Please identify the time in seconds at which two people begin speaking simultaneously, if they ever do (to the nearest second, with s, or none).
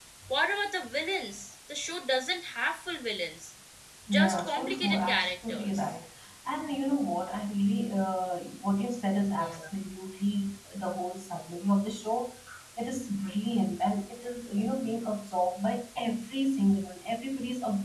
4 s